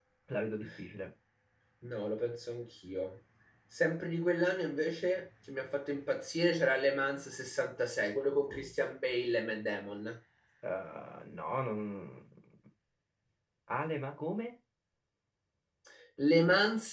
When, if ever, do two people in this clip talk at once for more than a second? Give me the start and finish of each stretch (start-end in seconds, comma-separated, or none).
none